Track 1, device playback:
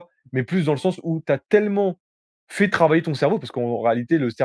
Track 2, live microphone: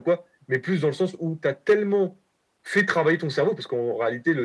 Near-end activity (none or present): none